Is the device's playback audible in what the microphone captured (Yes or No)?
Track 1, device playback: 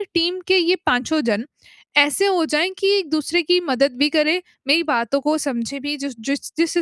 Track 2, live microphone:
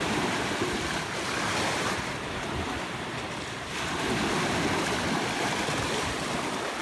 No